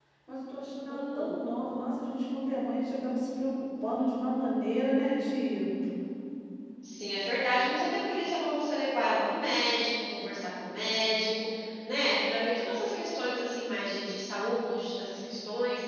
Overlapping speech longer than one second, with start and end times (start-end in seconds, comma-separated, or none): none